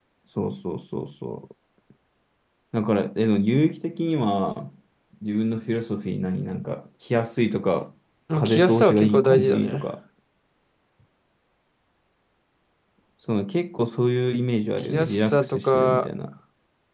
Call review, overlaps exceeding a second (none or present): present